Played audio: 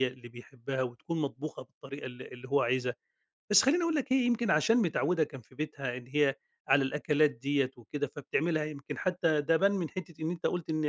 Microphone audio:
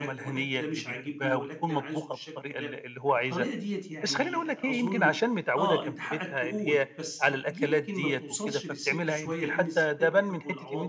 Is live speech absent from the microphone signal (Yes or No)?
No